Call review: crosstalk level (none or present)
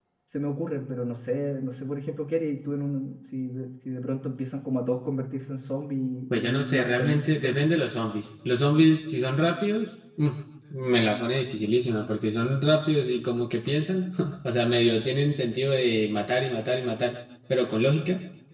present